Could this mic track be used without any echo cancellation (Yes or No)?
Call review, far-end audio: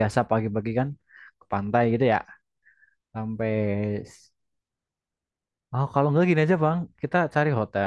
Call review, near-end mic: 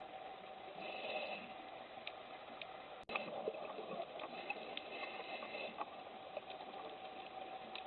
Yes